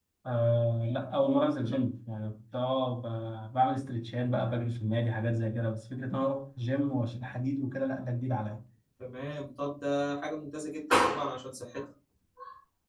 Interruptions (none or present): none